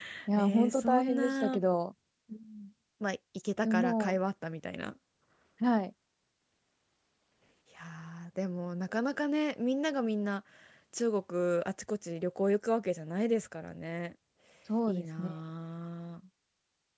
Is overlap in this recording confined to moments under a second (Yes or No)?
No